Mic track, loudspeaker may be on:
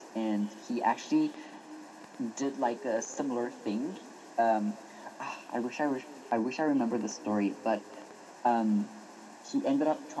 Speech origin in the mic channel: echo only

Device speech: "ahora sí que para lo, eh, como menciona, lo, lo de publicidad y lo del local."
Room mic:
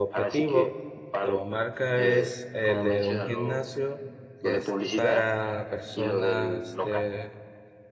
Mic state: both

